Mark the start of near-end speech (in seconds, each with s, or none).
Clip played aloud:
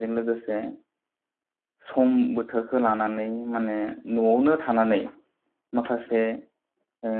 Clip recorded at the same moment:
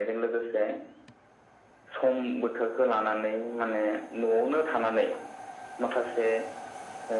none